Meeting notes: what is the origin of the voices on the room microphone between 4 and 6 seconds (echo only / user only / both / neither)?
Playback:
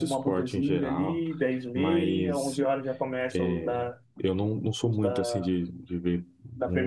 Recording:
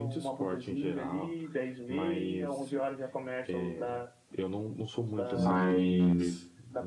both